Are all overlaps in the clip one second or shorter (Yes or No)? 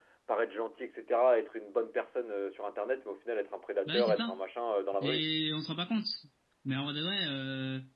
Yes